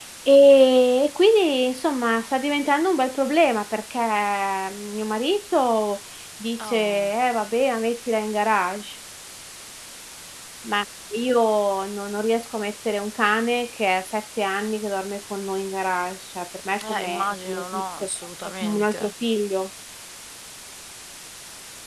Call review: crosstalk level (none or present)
present